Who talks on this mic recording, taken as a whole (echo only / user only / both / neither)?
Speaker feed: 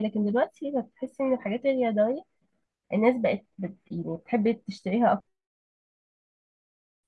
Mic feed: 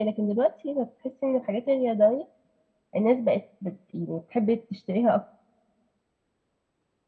echo only